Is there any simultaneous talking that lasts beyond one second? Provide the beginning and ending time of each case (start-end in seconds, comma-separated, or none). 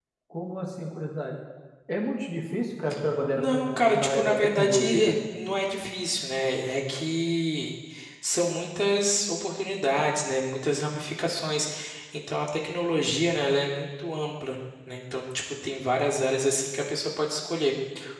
3.4-5.2